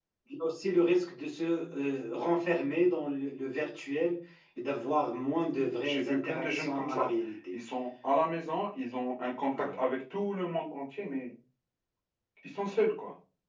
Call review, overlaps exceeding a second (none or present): present